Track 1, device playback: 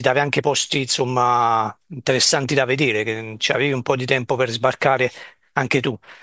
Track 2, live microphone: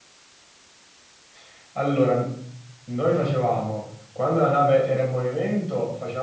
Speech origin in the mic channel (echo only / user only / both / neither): user only